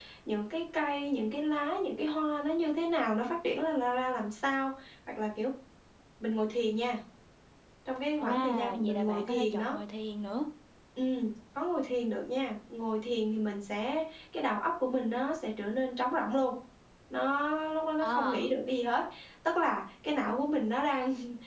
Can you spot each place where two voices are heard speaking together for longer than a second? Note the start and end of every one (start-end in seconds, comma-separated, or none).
8.2-9.8